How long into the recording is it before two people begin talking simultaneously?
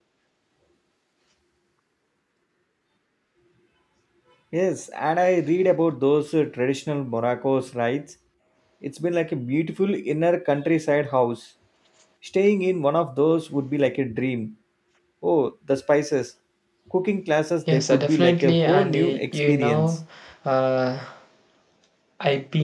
18 s

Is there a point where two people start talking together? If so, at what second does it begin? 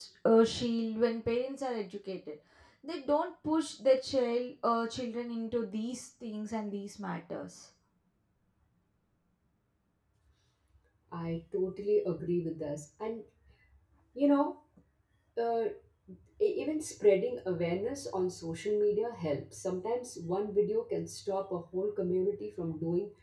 none

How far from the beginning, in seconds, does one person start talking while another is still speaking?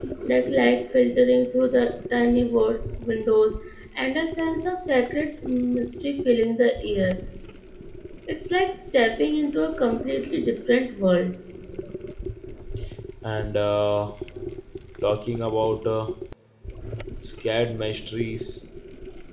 none

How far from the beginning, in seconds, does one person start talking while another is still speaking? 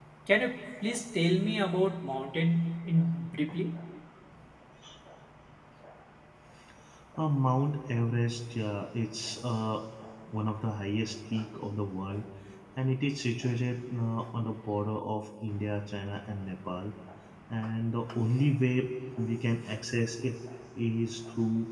none

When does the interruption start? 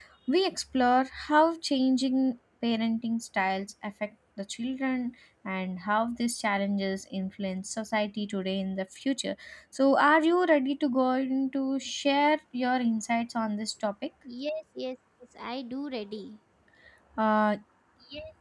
none

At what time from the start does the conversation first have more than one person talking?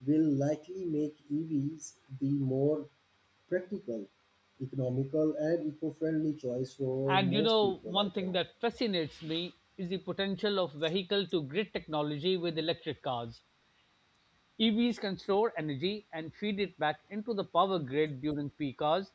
7 s

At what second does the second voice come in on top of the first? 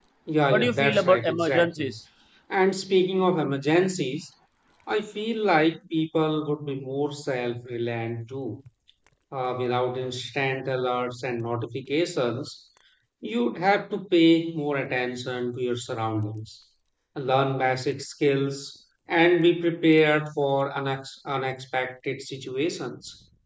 1 s

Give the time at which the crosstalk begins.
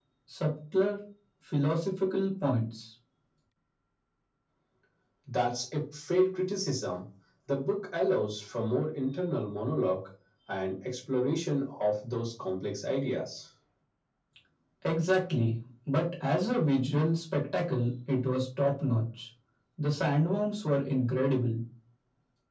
none

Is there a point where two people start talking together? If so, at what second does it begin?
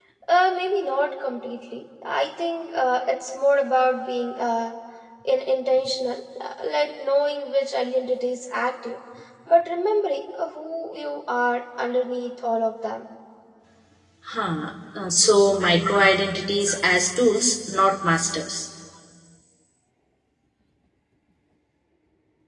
none

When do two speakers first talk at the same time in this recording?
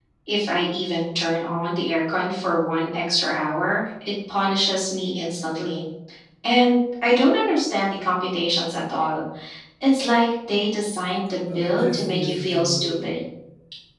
11 s

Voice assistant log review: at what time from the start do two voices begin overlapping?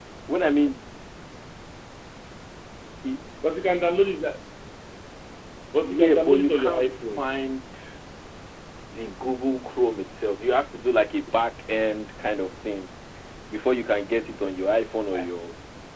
6 s

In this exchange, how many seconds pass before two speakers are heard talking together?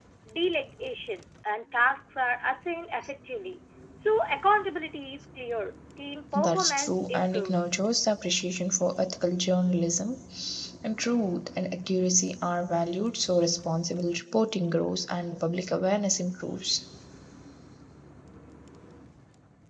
6 s

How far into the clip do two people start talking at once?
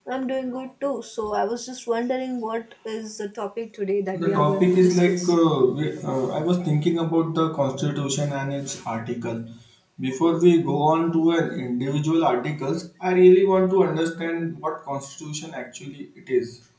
4 s

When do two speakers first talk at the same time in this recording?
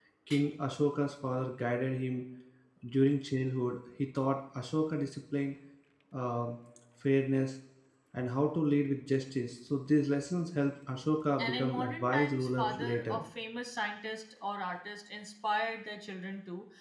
11 s

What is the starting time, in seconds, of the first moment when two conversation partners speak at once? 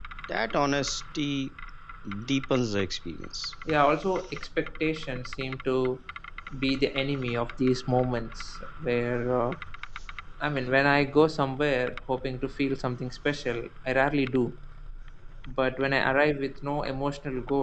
none

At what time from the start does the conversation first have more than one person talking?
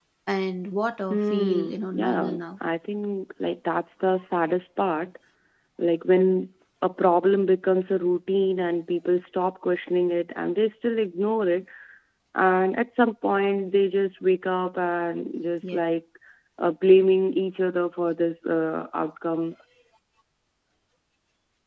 1 s

